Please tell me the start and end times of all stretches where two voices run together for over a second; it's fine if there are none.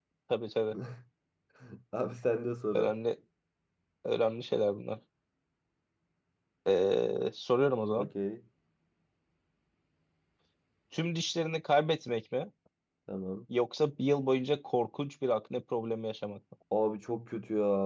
none

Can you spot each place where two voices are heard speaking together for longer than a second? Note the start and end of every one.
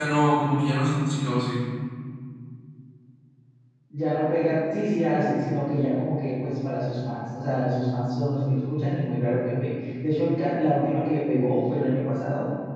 none

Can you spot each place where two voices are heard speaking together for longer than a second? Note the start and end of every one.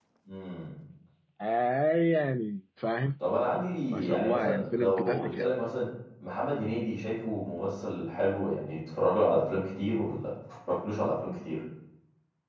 3.9-5.5

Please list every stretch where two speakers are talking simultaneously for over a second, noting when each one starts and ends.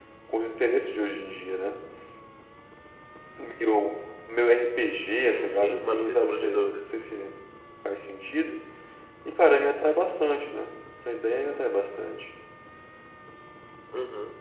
5.1-6.9

